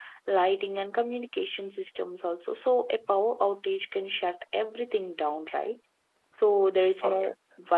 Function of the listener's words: listening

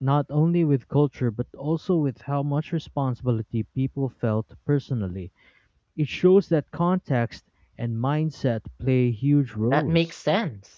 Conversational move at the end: taking over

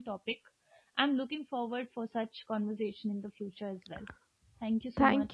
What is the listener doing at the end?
taking over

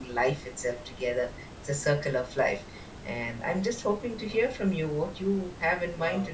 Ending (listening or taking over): taking over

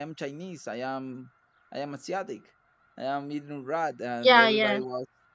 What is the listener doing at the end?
listening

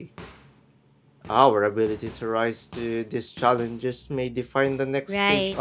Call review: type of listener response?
taking over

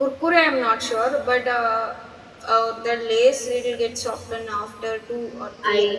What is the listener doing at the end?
taking over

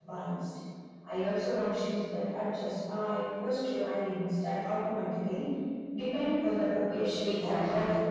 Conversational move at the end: taking over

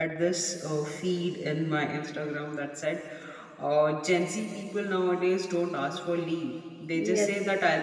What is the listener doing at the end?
listening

